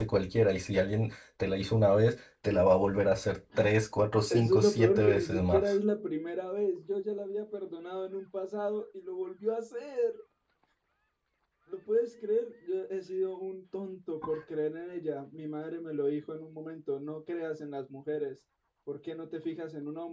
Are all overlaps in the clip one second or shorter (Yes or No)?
No